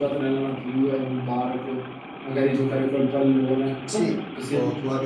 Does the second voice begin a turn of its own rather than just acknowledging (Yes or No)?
Yes